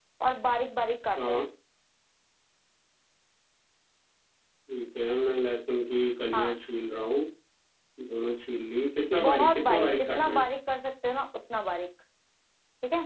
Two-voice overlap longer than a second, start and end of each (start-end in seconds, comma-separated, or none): 9.2-10.4